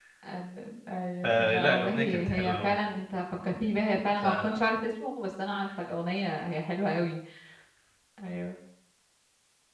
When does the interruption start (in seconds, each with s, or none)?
1.2 s